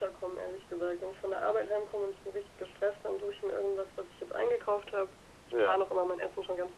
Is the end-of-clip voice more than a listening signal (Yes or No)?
No